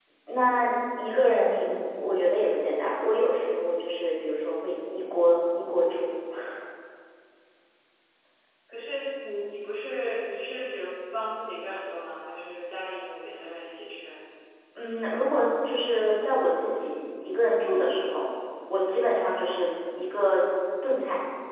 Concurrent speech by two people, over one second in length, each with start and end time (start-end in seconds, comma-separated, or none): none